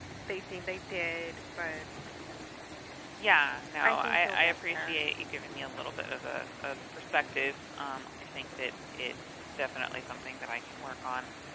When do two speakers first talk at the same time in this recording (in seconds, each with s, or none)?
3.8 s